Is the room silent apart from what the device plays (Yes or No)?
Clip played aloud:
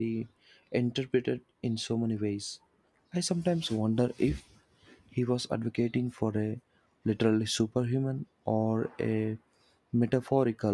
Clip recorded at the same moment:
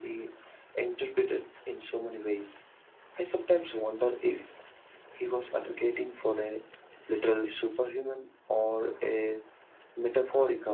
Yes